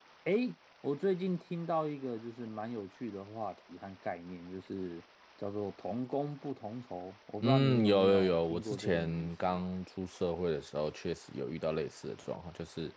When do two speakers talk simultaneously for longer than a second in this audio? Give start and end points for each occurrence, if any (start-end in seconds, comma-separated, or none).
7.4-9.6